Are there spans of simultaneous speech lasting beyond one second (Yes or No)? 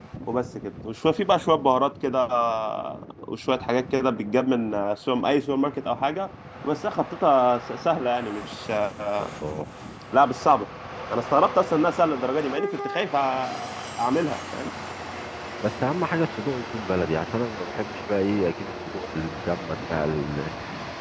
No